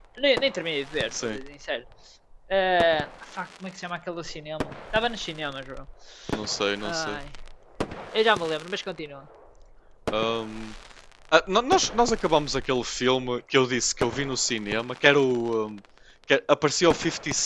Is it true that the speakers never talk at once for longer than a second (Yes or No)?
Yes